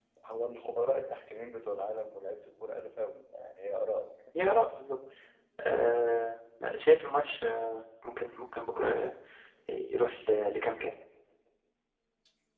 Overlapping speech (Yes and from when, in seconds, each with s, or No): No